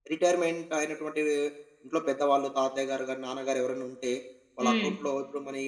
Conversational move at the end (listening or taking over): listening